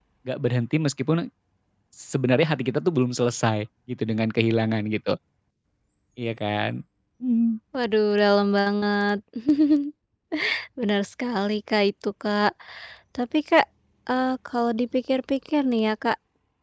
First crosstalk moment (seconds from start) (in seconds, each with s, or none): none